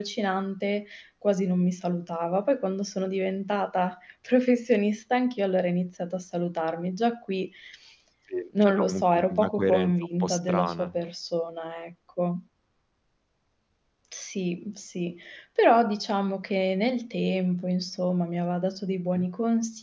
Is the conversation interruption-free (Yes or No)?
No